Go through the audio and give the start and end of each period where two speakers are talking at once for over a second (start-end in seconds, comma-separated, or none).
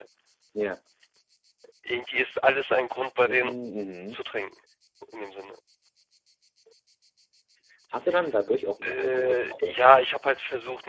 8.8-10.0